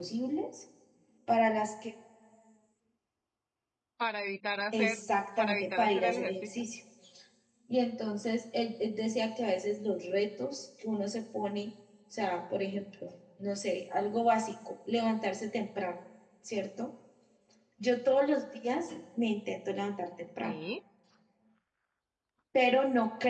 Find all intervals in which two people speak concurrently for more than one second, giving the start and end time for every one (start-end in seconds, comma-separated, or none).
5.4-6.6